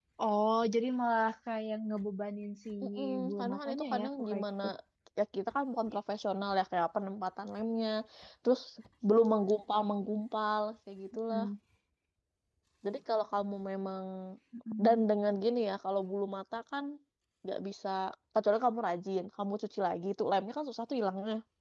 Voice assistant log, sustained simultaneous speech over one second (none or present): present